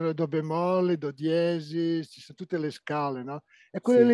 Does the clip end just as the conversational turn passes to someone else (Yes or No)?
No